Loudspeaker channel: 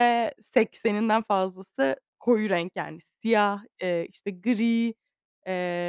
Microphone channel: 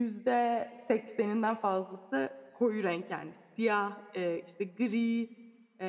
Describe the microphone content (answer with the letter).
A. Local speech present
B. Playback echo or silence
B